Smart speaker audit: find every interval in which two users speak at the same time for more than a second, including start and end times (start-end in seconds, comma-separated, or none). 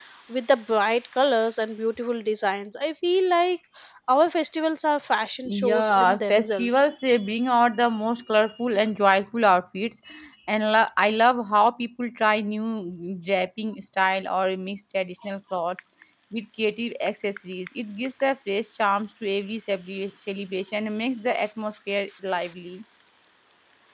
5.4-6.9